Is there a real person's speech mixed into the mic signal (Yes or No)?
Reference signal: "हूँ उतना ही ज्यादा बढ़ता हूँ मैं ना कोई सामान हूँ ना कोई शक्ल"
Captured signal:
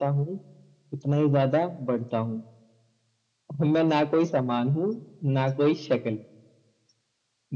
No